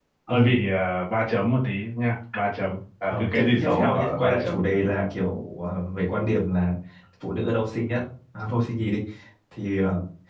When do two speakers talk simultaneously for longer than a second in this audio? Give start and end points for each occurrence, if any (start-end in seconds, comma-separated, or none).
3.1-4.6